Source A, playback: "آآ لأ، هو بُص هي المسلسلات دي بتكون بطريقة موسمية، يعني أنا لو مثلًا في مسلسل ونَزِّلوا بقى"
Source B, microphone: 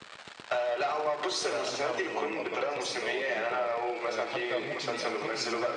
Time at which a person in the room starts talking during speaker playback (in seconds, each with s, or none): 1.5 s